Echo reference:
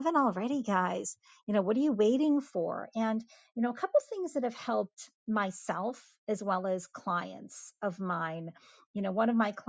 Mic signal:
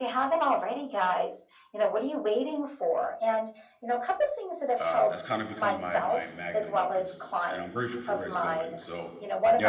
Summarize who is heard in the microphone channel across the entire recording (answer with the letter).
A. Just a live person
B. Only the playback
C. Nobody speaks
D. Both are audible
D